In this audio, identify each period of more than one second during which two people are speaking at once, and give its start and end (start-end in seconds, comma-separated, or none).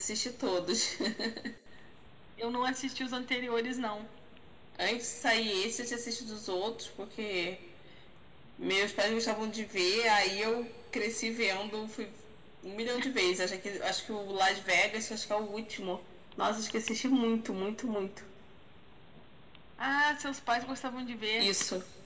none